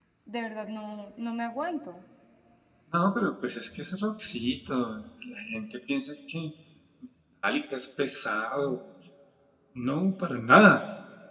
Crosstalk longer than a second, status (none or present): none